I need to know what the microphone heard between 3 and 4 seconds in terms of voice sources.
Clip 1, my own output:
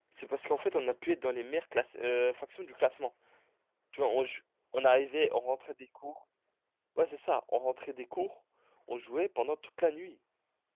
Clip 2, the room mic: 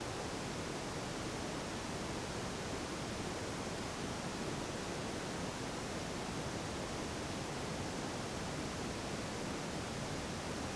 neither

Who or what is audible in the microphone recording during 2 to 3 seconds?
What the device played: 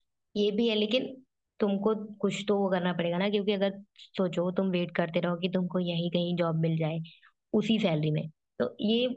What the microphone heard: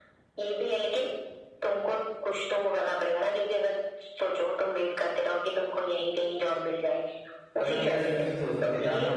echo only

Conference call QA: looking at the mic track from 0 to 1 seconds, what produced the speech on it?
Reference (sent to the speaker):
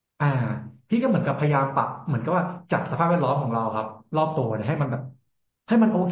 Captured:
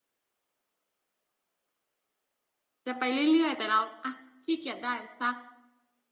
neither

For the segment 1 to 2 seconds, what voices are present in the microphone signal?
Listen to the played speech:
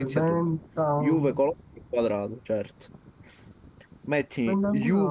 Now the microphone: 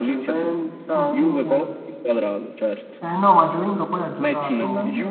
both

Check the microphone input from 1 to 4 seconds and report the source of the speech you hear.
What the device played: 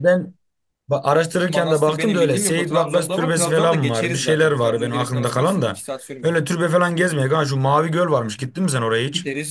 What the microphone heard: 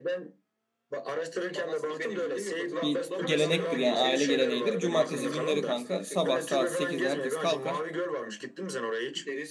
both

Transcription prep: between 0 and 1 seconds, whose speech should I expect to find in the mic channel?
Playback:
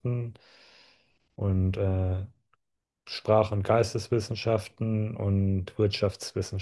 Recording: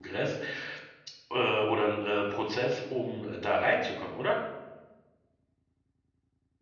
user only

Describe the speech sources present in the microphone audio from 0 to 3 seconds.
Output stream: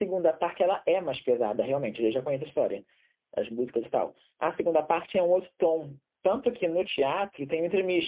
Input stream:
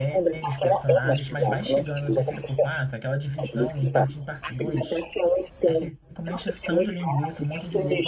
both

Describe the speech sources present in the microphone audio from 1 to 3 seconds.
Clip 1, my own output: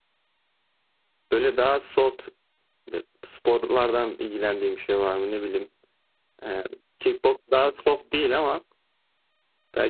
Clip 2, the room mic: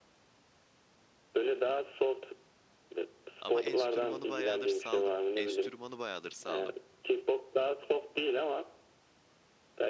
echo only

